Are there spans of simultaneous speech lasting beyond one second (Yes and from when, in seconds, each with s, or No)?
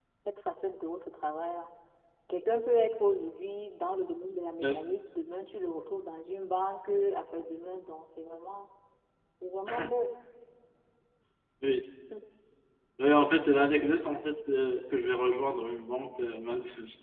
No